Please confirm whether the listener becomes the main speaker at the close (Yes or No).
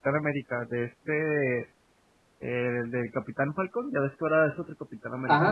Yes